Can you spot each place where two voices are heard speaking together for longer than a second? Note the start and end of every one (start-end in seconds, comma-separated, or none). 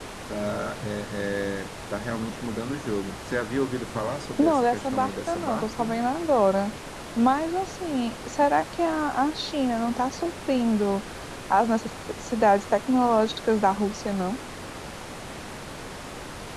4.4-6.0